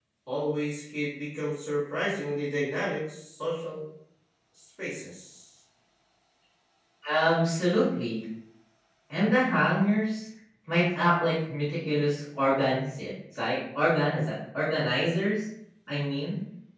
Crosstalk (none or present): none